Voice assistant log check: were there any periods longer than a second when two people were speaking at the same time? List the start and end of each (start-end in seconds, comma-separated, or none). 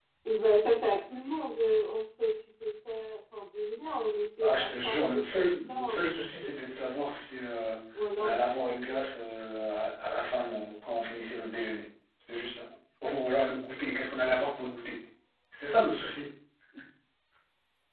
4.4-6.8